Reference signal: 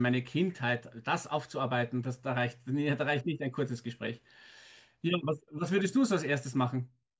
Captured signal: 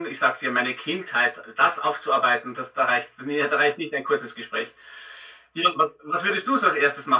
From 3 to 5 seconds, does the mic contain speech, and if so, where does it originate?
echo only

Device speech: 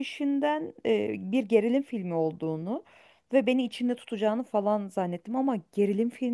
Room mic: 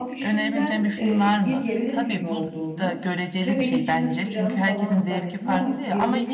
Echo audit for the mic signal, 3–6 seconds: both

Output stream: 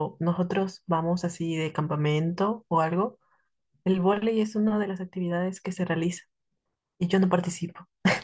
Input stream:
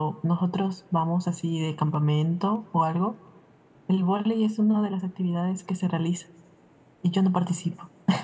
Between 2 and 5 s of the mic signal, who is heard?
echo only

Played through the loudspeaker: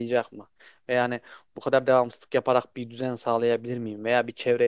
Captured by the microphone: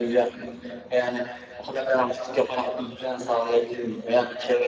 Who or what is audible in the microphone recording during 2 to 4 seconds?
echo only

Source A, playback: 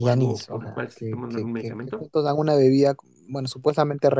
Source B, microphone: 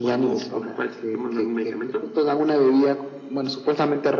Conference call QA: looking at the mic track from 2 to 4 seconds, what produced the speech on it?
echo only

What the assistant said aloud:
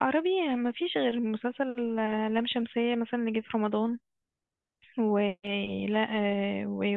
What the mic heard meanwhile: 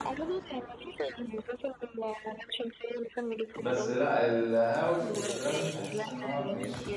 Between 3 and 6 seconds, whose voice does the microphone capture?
both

